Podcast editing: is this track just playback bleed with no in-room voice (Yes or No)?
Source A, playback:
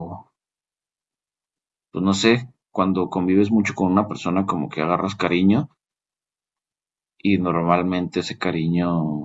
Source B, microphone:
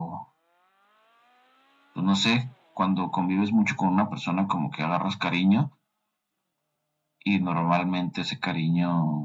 Yes